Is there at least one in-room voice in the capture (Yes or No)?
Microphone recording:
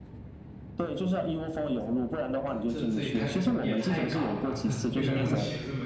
Yes